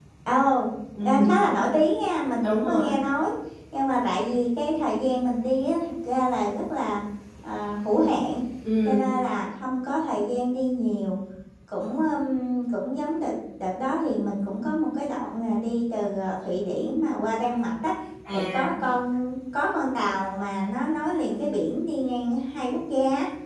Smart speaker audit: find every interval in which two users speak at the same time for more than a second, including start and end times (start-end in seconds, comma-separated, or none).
none